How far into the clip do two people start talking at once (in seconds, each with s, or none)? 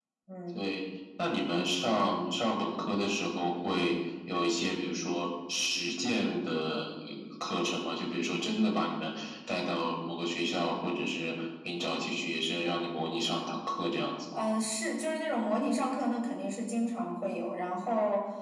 none